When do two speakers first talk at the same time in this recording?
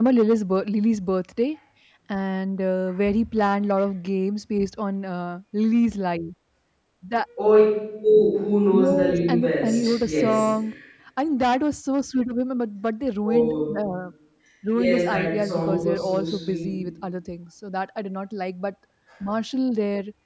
8.7 s

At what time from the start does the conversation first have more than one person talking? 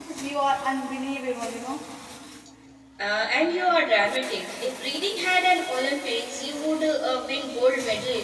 none

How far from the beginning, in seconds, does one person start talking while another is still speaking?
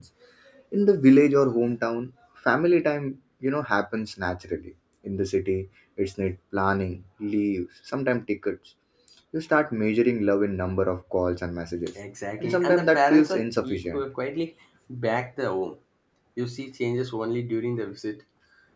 12.4 s

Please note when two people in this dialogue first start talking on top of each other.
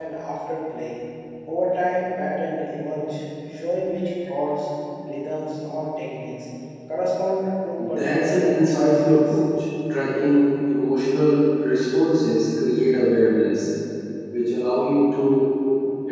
7.8 s

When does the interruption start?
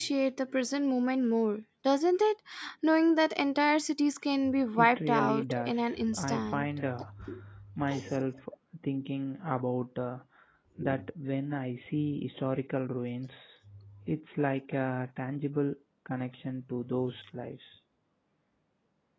4.8 s

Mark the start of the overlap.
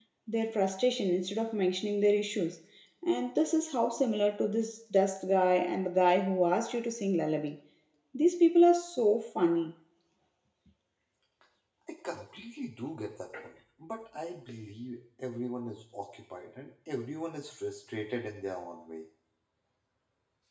none

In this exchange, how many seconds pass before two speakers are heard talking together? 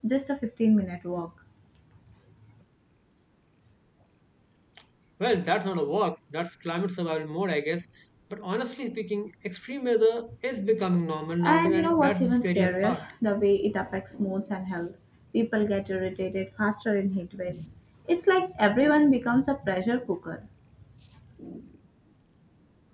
11.4 s

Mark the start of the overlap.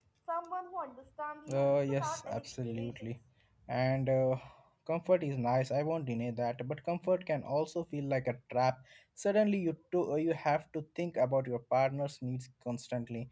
1.5 s

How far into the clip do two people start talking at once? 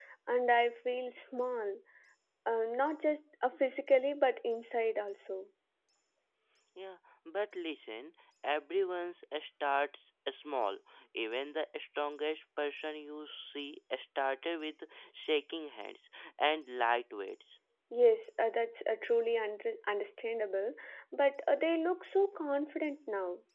none

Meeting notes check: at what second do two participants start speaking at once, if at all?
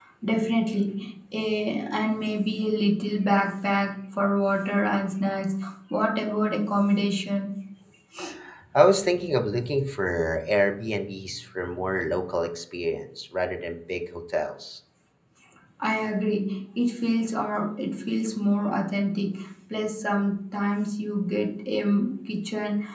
none

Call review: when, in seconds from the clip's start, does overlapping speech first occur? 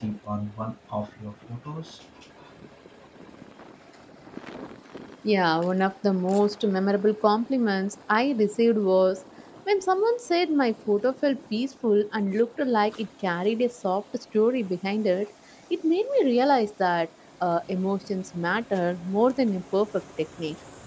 none

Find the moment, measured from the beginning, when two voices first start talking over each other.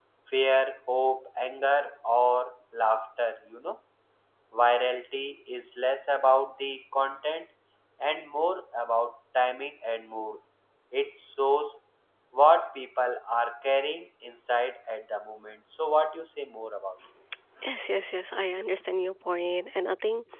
none

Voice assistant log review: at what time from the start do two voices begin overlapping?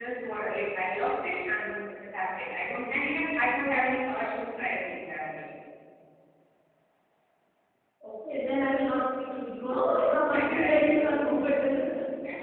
9.7 s

